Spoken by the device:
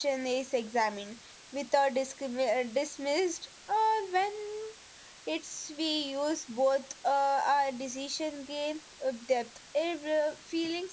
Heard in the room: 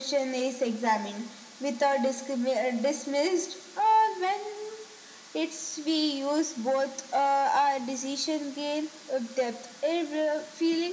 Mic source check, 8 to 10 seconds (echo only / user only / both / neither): echo only